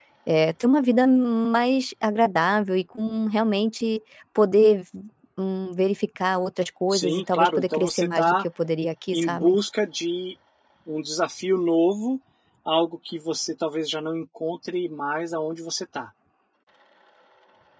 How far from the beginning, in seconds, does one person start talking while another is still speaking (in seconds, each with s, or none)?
6.9 s